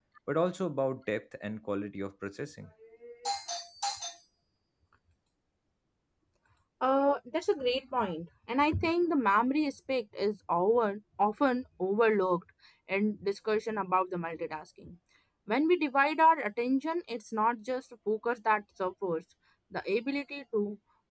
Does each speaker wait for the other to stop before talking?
Yes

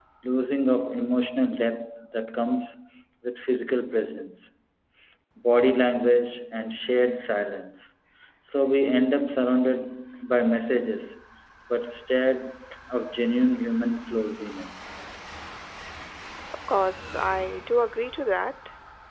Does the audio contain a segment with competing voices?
No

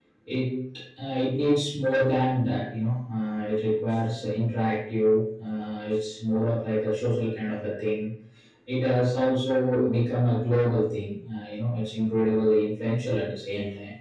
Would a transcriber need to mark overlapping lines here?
No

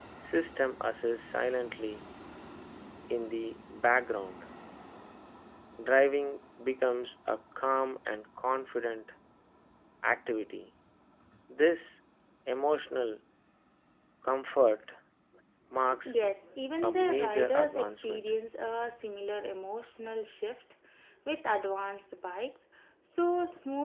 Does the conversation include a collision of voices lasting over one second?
Yes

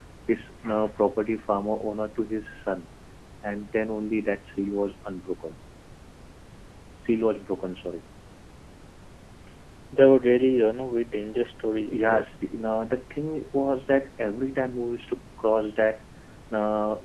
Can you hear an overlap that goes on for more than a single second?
No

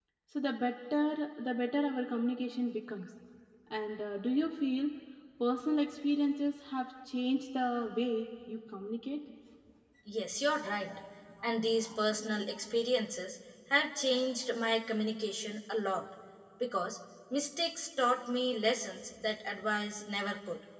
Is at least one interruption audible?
No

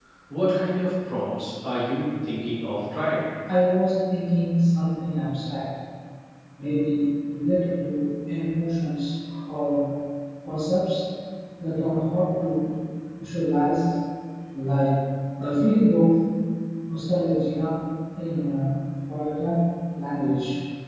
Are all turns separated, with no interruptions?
Yes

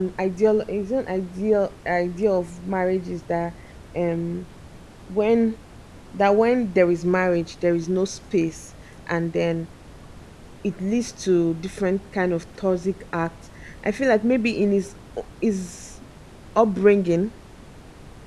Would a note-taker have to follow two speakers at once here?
No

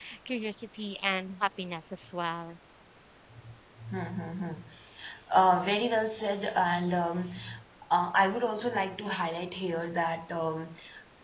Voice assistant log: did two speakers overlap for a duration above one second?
No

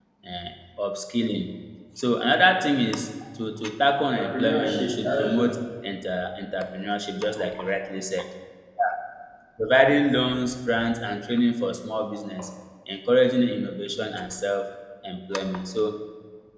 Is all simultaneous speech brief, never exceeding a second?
No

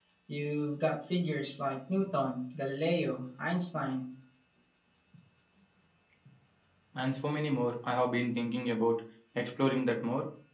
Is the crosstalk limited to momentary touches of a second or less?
Yes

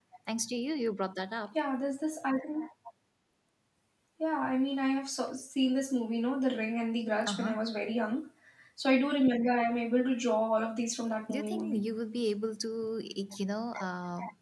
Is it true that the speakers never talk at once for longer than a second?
Yes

